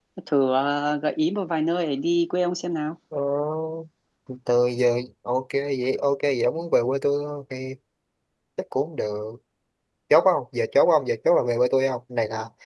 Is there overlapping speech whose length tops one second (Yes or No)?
No